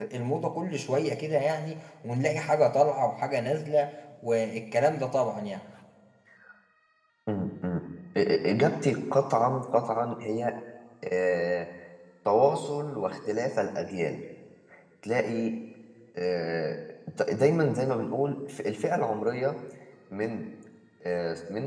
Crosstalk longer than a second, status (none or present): none